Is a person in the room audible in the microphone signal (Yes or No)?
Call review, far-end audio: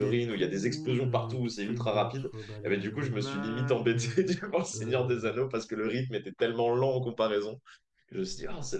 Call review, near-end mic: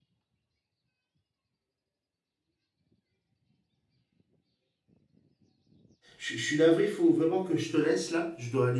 Yes